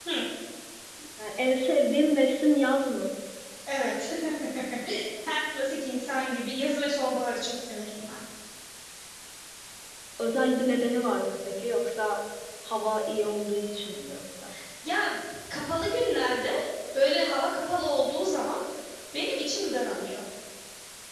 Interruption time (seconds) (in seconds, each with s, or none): none